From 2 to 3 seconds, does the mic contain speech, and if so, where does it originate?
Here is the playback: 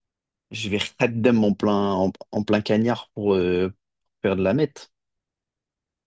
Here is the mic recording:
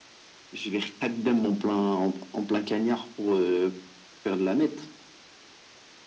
echo only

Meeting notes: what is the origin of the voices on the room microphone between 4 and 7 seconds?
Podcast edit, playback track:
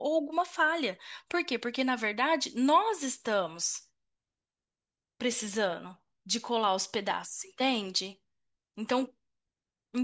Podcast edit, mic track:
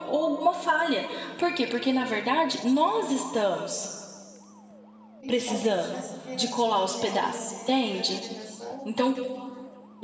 both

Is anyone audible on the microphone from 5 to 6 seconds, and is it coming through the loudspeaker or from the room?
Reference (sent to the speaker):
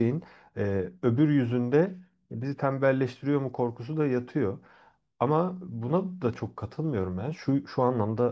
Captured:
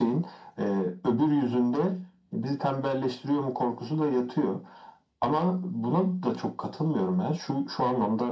echo only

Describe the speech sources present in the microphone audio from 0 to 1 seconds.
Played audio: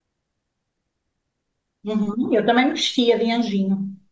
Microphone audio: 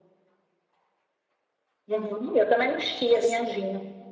neither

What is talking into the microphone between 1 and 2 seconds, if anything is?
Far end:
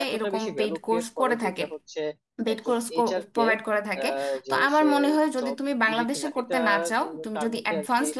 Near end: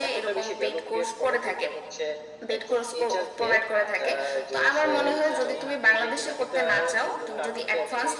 echo only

